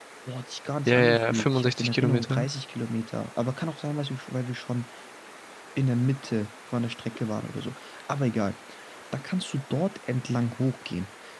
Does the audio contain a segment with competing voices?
Yes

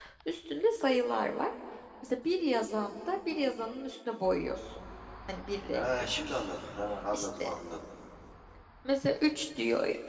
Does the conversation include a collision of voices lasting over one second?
No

